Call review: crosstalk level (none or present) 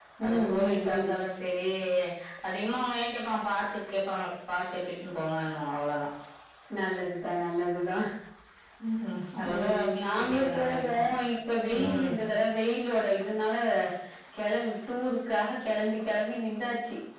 present